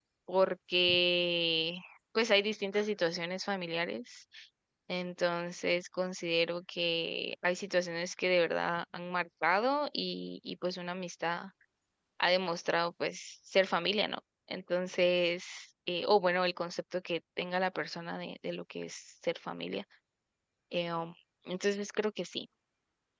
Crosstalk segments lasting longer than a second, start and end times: none

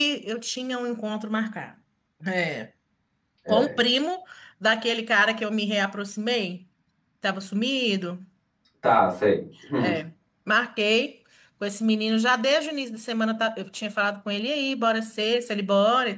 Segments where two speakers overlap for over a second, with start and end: none

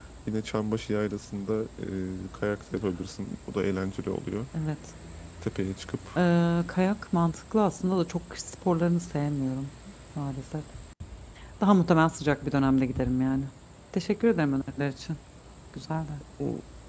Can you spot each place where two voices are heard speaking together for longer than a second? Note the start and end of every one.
none

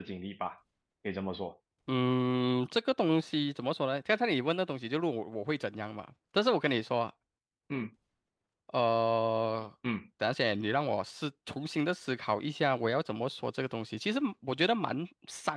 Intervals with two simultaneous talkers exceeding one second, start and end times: none

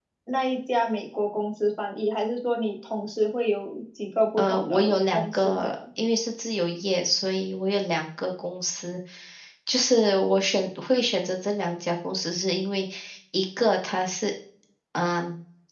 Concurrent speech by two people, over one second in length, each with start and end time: 4.4-5.8

